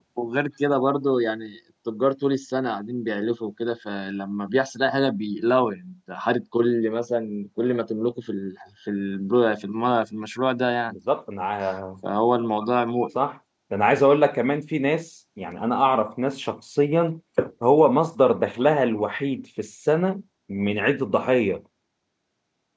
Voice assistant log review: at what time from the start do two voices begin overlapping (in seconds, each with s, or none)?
none